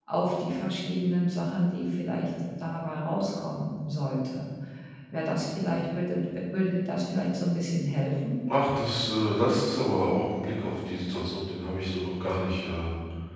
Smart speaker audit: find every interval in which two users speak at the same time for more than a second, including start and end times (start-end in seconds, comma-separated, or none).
none